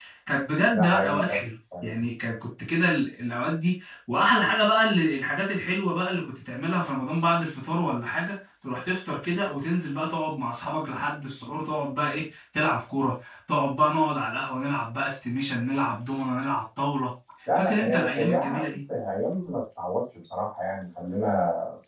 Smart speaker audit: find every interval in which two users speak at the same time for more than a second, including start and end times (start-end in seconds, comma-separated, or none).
17.5-18.8